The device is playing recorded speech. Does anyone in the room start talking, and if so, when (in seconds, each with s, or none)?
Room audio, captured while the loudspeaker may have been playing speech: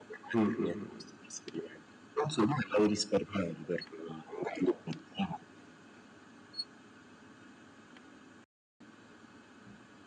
0.3 s